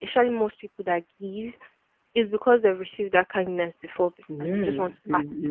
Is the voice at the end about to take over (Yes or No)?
Yes